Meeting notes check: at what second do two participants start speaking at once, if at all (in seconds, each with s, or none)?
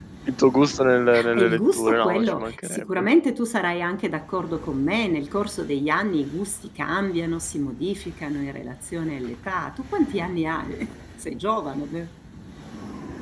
1.1 s